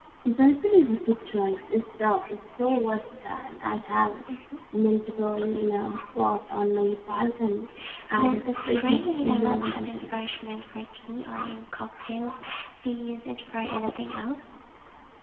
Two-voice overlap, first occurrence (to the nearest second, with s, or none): 8 s